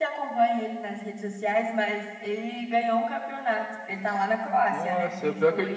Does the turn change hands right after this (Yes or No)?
Yes